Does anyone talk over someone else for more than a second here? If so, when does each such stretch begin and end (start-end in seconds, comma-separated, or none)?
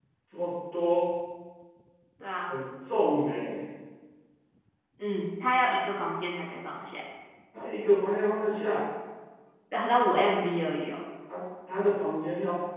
none